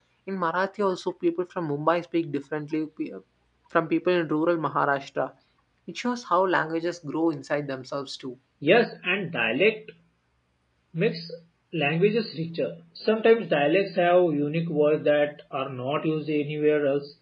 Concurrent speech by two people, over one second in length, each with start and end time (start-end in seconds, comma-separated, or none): none